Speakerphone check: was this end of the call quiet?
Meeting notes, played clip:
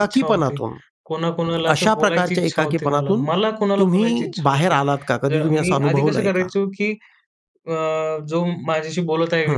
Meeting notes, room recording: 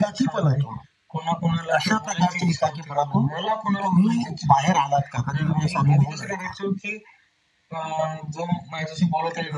Yes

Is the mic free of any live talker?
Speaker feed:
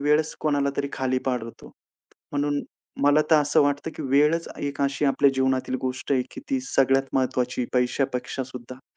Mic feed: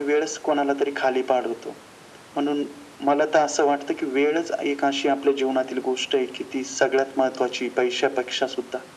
Yes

